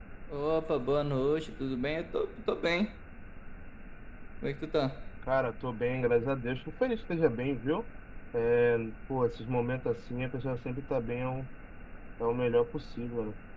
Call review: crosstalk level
none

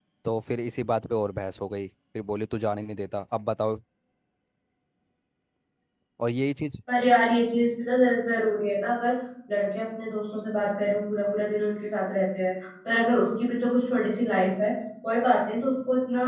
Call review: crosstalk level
none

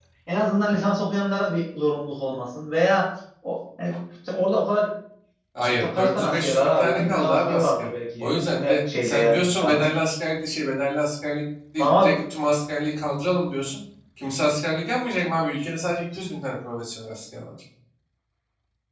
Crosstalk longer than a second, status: present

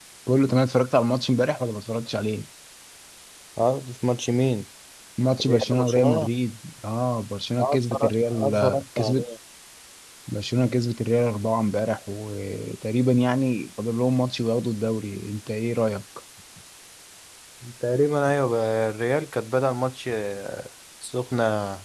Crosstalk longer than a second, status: present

